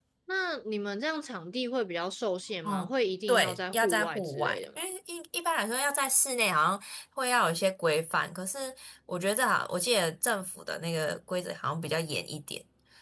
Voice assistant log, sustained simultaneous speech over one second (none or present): present